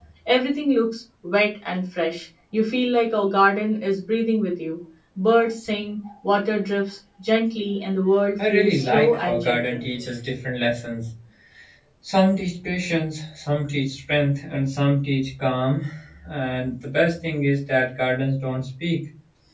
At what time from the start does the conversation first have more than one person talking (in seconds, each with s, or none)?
8.4 s